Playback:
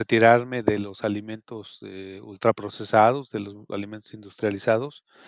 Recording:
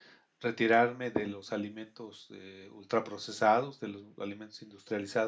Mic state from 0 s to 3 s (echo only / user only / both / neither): echo only